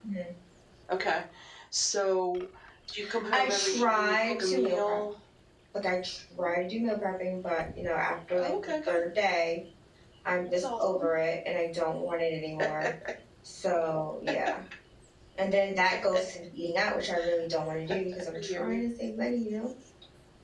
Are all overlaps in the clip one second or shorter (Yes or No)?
No